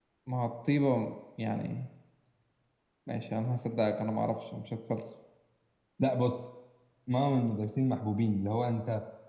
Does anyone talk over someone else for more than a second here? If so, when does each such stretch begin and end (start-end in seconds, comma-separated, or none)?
none